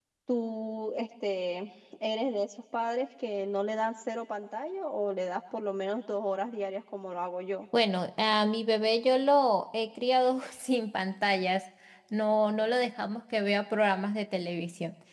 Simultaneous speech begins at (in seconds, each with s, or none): none